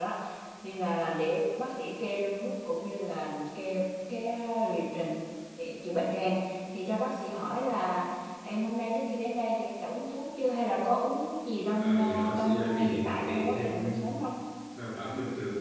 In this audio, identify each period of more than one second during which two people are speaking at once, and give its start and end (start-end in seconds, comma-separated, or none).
11.8-13.9